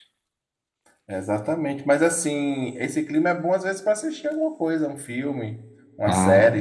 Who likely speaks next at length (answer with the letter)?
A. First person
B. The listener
B